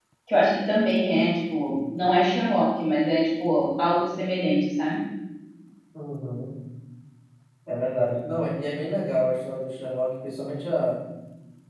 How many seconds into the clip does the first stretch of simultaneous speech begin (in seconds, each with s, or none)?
none